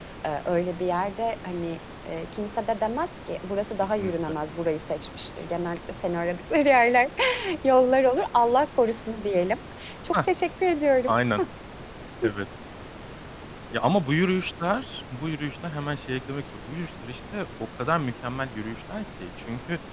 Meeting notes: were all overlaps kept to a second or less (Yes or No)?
Yes